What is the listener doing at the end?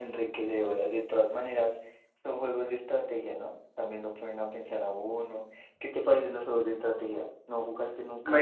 taking over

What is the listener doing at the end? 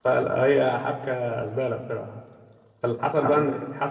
listening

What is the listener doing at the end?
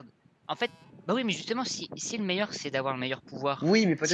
taking over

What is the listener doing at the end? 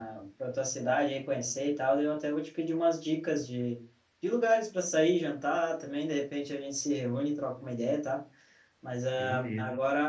listening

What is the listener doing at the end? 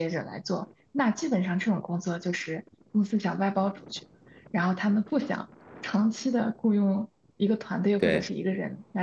listening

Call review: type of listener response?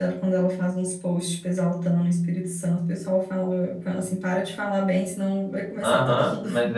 taking over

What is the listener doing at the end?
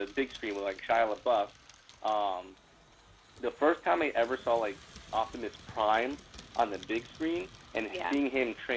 listening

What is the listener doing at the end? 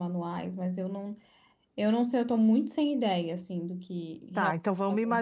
taking over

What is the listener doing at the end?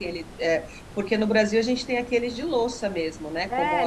taking over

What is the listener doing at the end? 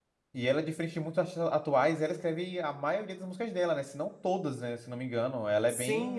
taking over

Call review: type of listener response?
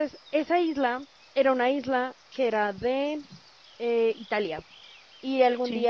listening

